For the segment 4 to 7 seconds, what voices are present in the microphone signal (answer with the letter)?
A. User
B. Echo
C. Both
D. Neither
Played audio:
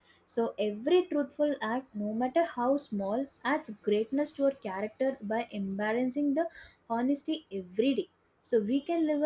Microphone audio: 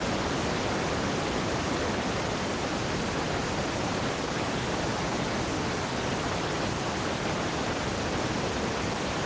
D